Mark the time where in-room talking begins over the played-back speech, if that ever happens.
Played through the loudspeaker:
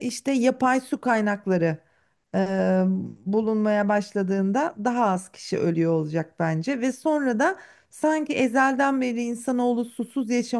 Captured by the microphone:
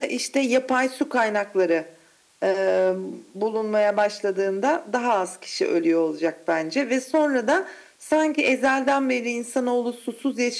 none

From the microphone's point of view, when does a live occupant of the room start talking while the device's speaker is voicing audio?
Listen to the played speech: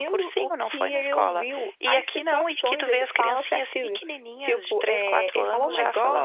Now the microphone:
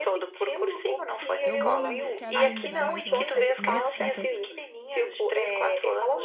1.4 s

